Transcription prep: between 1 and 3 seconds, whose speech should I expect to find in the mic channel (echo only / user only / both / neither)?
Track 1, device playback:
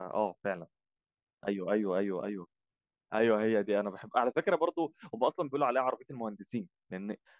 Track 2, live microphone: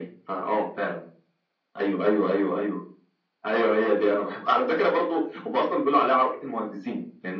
echo only